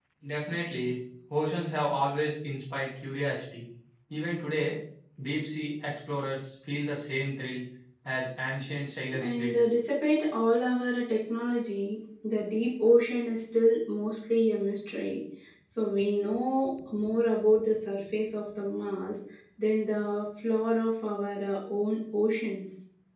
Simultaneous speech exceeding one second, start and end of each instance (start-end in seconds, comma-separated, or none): none